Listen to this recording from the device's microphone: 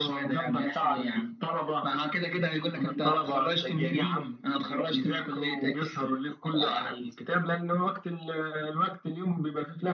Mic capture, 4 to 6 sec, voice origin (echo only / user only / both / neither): echo only